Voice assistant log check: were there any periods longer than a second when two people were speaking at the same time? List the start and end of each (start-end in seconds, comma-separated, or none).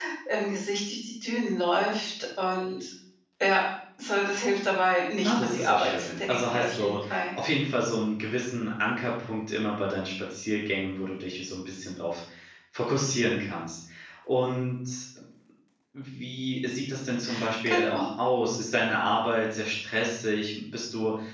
5.2-7.0